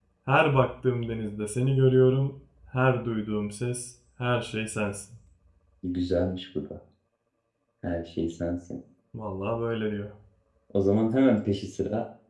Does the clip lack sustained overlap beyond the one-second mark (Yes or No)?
Yes